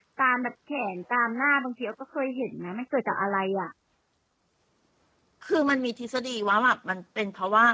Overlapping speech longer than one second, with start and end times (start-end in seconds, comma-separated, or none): none